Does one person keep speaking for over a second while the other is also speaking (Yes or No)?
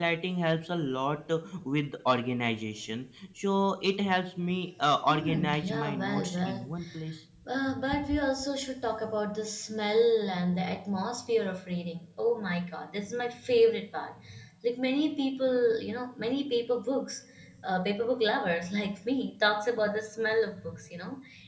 Yes